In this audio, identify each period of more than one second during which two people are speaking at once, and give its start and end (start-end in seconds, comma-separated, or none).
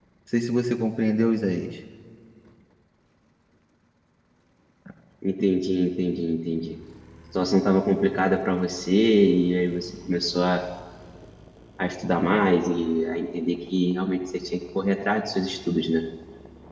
none